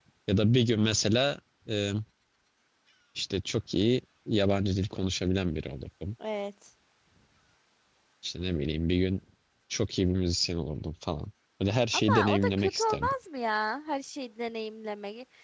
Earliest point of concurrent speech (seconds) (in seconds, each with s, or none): 11.9 s